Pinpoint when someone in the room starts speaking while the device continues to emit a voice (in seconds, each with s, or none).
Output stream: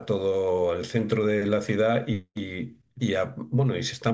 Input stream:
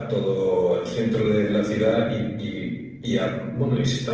none